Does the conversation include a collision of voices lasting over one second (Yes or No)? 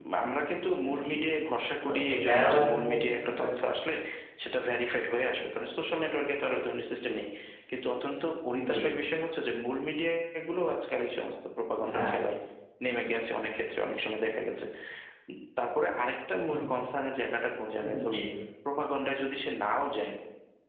Yes